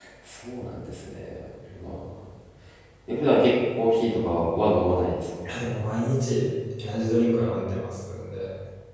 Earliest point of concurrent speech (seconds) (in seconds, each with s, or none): none